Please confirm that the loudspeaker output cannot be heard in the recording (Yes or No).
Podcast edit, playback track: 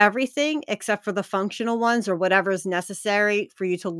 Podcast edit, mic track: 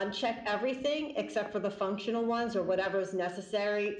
No